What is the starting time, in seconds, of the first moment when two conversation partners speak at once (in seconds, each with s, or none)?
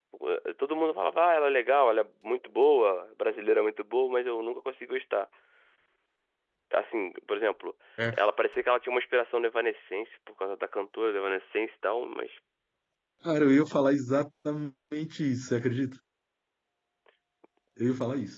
none